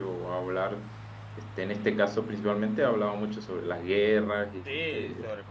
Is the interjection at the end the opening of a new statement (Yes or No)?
Yes